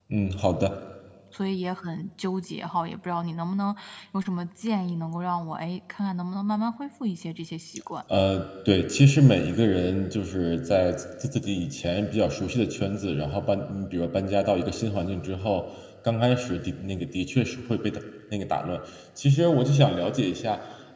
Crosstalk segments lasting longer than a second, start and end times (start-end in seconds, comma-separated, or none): none